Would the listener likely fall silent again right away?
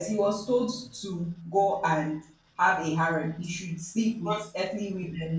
Yes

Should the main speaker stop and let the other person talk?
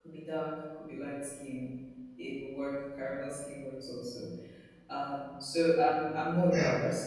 Yes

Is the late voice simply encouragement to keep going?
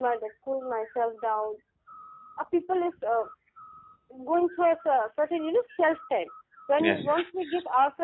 Yes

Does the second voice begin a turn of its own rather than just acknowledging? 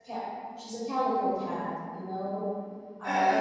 No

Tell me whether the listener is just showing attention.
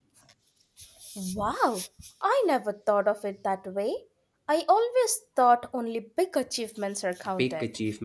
No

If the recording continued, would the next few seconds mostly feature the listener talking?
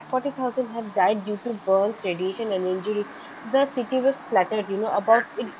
No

